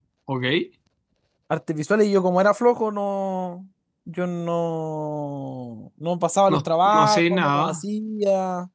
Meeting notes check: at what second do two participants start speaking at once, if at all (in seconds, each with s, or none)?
6.5 s